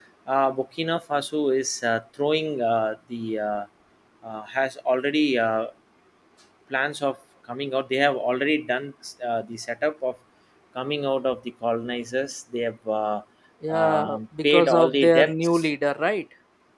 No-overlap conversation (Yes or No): No